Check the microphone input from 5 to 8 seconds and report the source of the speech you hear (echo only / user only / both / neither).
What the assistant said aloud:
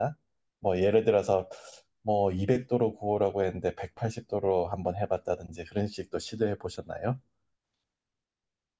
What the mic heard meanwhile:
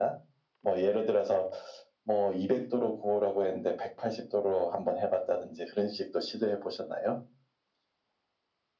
echo only